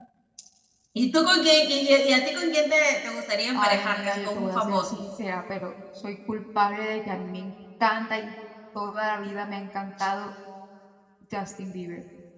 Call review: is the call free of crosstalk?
No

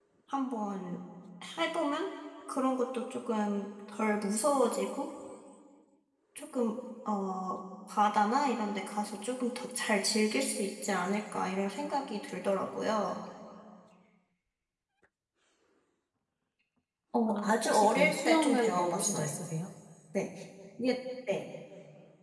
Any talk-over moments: Yes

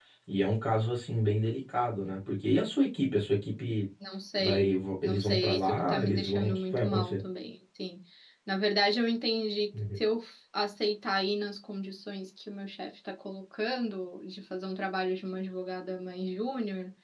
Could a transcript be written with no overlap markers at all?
No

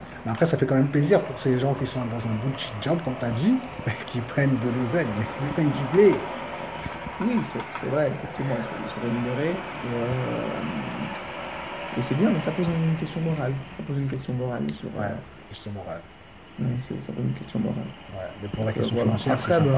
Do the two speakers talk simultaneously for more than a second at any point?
Yes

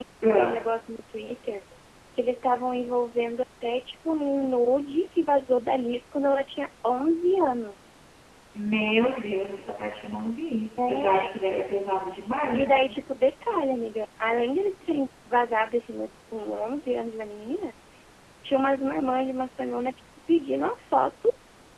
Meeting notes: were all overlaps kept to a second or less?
Yes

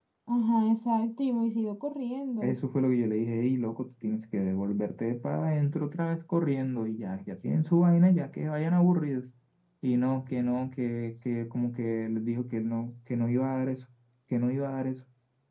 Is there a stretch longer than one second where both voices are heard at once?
No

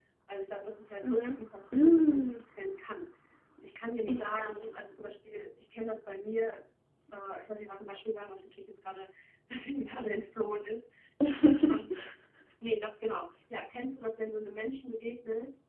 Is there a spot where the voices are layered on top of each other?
Yes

